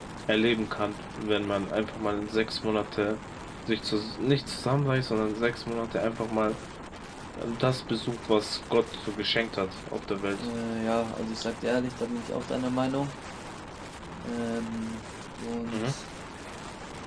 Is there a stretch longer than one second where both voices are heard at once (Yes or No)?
No